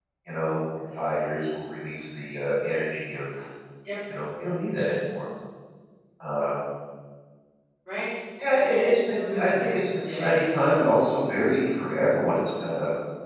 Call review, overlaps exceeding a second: present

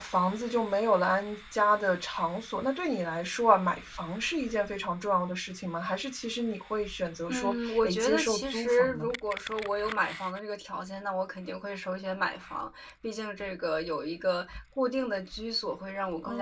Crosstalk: present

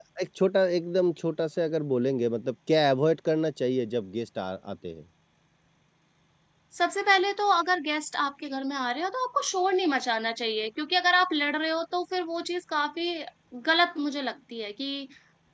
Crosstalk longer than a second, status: none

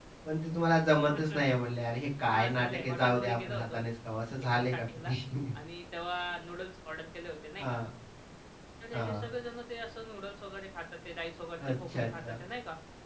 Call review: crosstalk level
present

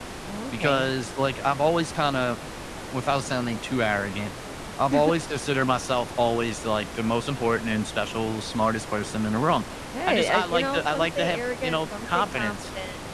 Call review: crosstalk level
present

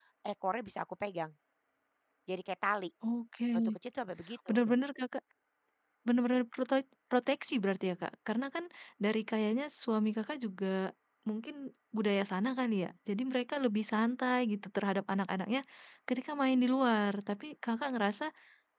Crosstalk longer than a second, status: none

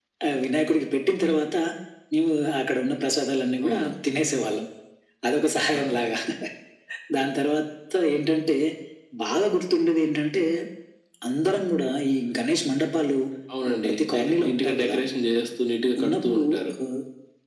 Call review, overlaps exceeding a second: present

